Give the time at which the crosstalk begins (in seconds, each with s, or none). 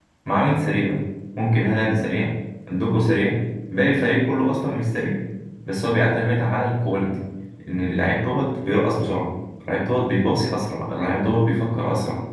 none